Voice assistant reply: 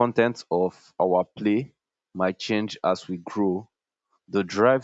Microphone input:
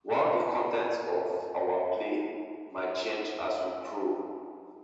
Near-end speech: none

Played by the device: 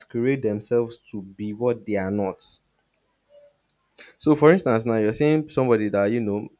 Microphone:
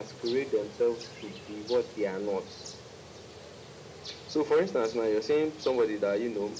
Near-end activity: none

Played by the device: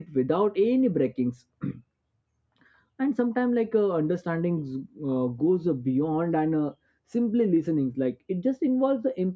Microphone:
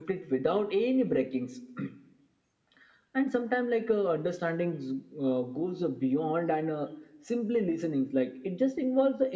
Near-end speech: none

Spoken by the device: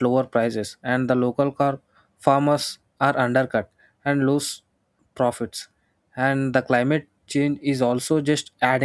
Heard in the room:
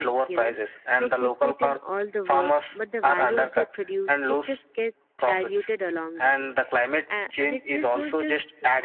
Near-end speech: present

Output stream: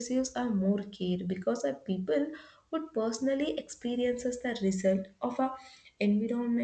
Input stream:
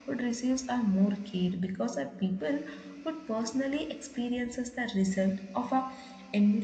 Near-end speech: none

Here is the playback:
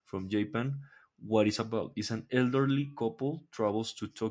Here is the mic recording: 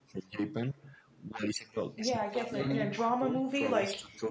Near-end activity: present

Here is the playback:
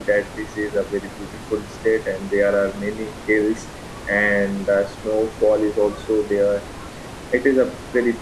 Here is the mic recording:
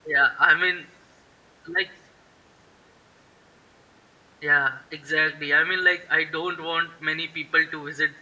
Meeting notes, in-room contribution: present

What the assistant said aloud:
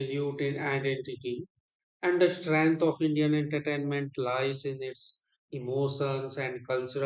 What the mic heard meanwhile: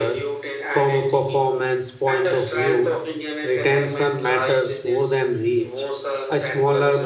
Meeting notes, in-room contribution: present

